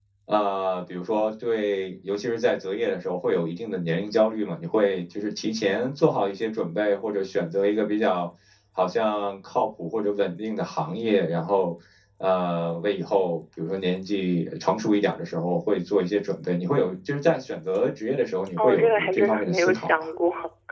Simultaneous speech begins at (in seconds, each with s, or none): 18.6 s